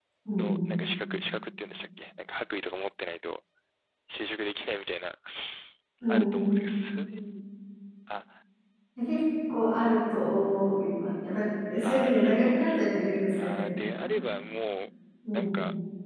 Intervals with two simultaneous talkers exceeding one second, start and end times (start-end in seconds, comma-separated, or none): 11.8-14.1